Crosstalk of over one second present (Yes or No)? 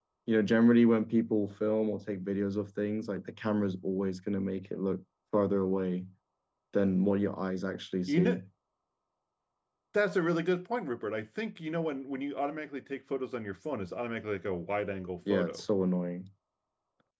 No